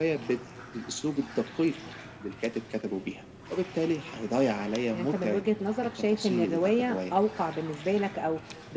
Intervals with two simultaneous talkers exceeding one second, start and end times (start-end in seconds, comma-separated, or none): 5.8-7.2